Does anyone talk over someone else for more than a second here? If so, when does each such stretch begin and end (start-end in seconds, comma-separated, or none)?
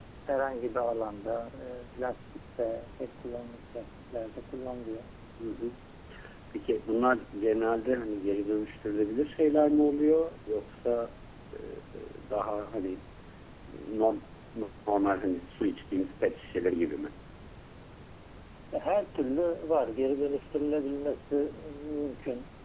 none